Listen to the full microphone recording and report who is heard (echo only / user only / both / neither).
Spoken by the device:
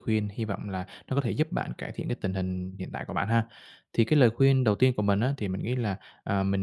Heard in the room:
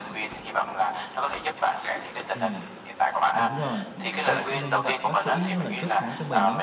both